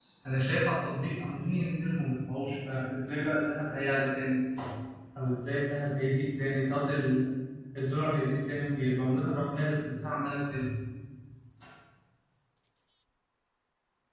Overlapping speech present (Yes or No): No